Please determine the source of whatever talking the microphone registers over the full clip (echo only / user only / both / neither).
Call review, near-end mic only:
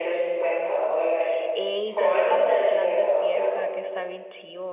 both